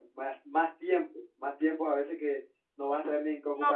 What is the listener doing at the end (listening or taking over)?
taking over